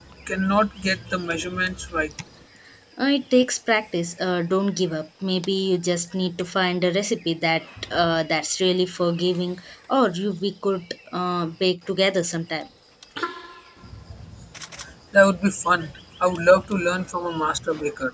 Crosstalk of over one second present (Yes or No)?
No